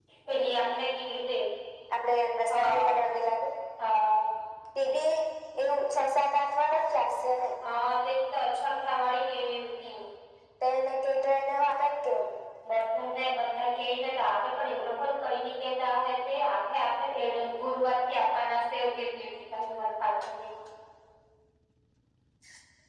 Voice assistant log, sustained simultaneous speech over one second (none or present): none